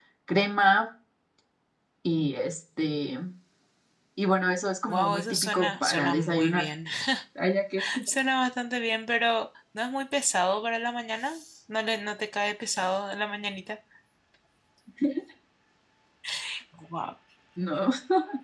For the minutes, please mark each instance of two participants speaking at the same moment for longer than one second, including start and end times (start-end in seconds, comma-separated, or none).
4.9-6.7